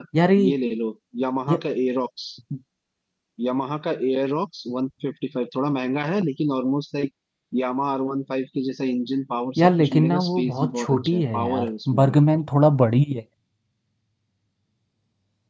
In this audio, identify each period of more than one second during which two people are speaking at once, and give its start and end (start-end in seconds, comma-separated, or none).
9.6-12.2